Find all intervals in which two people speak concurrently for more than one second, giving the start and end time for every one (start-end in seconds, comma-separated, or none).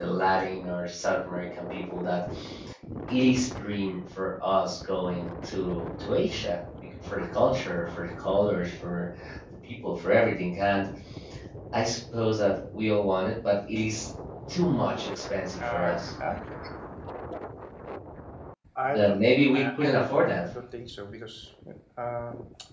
18.8-20.4